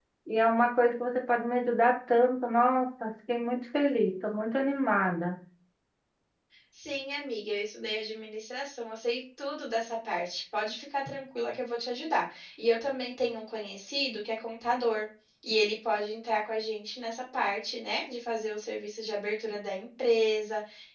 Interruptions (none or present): none